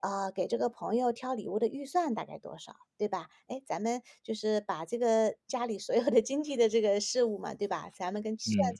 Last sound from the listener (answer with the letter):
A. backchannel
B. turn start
A